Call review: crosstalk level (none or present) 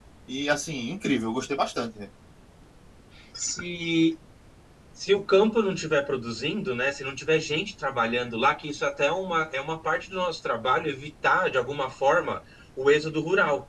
none